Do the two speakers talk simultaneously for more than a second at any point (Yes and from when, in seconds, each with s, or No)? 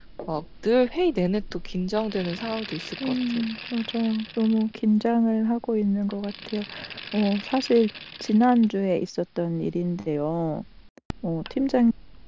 No